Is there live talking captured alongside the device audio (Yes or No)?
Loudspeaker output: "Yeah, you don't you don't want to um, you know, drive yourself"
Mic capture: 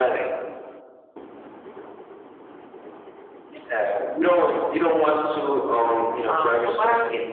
Yes